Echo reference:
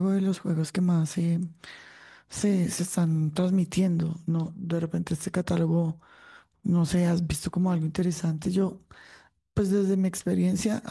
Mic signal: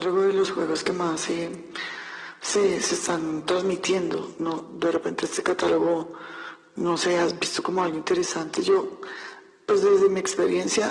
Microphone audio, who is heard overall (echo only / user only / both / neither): echo only